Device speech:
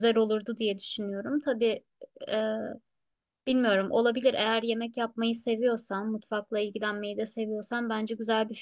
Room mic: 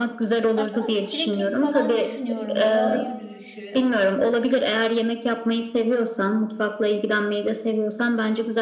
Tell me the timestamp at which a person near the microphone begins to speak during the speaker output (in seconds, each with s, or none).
0.6 s